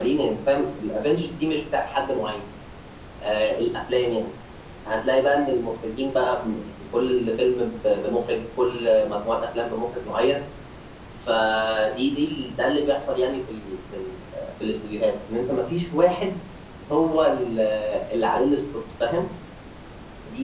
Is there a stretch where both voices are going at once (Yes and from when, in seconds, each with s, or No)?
No